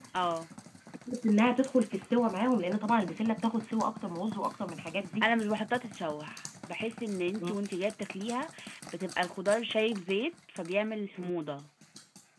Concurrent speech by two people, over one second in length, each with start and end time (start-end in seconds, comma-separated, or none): none